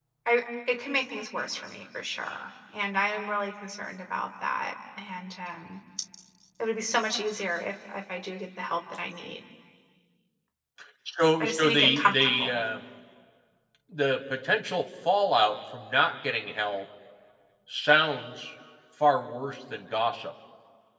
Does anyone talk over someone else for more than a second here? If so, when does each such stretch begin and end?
11.4-12.6

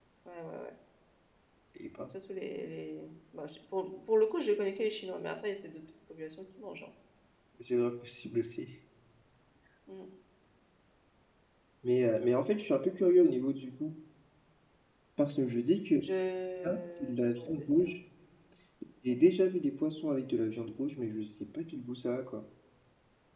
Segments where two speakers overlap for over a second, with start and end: 16.6-17.9

